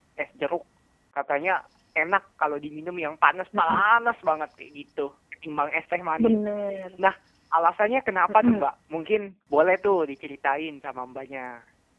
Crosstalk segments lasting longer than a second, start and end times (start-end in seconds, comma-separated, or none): none